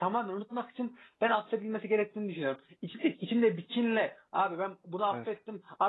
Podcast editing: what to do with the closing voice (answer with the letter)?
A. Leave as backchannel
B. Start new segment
A